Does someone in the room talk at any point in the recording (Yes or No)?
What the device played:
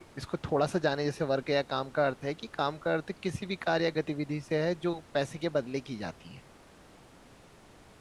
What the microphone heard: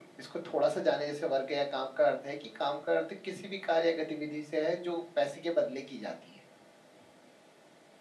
No